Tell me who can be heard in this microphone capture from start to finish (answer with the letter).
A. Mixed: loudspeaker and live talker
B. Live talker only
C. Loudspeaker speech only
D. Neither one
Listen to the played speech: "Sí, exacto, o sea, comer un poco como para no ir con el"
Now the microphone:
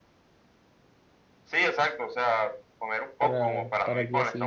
A